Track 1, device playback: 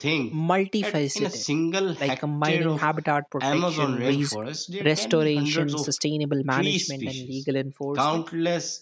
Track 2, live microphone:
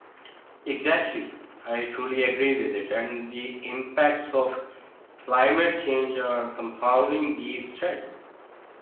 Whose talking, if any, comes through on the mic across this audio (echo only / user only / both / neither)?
user only